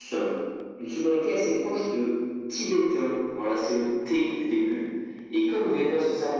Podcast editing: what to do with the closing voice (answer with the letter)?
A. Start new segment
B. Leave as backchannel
B